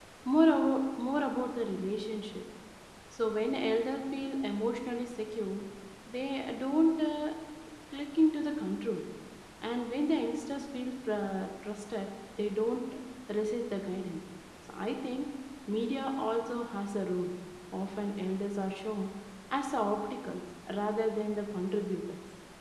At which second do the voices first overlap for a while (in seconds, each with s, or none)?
none